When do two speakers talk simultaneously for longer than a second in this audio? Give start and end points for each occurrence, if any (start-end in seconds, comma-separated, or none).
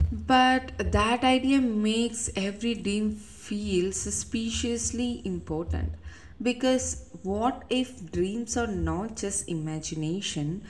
none